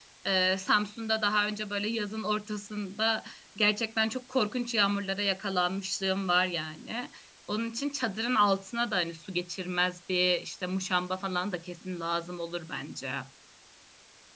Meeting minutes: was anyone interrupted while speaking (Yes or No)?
No